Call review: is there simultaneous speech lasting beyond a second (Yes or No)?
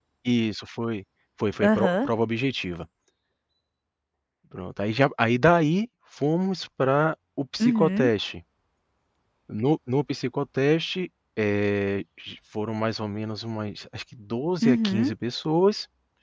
No